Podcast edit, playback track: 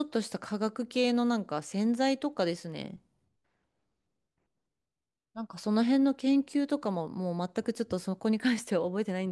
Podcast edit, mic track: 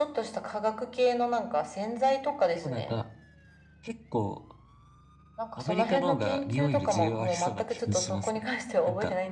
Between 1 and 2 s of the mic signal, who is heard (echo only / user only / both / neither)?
echo only